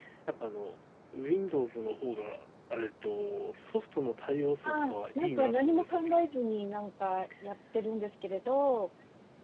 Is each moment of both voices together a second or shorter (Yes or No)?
No